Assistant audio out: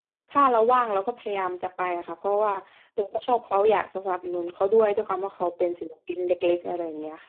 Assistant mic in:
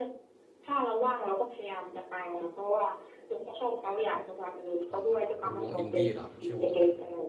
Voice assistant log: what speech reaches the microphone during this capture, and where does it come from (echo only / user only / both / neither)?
both